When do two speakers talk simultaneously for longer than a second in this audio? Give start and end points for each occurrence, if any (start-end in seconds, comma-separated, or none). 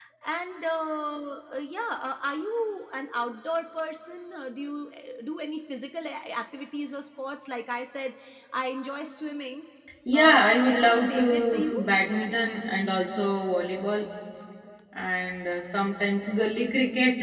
10.1-11.7